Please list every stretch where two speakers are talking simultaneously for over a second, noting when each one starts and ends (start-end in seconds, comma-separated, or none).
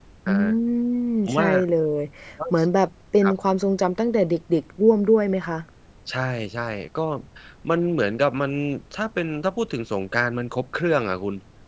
none